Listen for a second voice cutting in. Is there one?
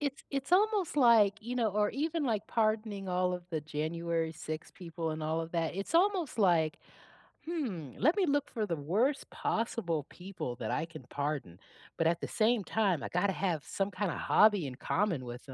No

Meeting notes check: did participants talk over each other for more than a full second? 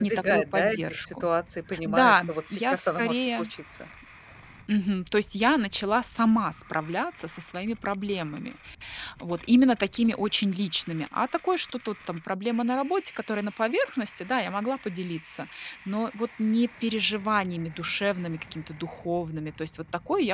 Yes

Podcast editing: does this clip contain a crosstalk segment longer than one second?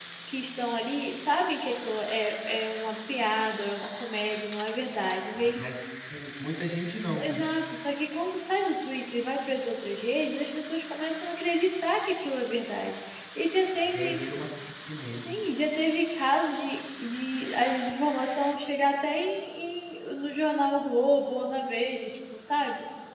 No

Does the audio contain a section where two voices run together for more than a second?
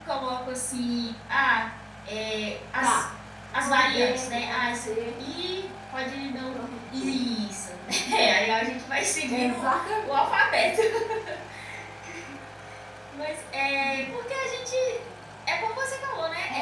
Yes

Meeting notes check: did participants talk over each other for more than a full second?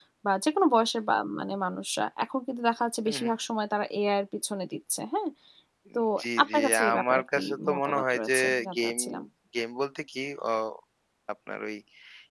Yes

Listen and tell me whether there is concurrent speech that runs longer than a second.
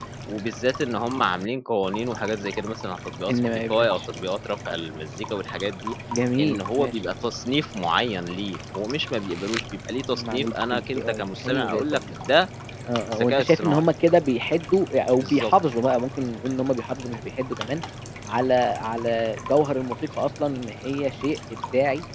Yes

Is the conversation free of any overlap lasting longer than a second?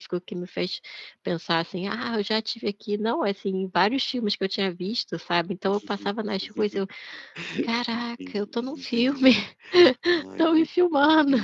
No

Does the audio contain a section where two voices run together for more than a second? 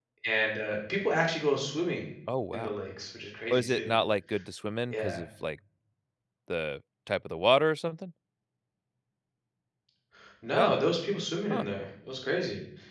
No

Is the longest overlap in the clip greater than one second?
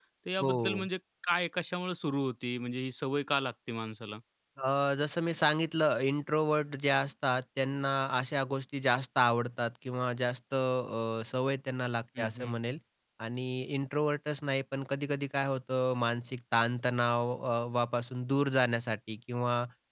No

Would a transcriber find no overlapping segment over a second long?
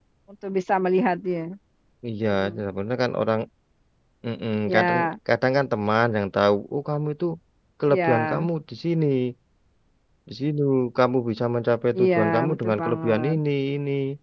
No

